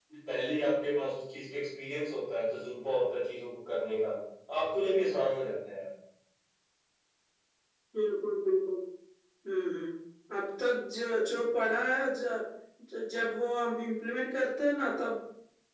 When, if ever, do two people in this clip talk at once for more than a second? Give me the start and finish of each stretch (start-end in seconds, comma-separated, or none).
none